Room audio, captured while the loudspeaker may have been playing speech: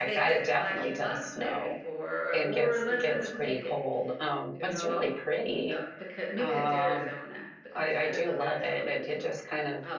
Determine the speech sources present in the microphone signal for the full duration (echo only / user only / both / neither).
both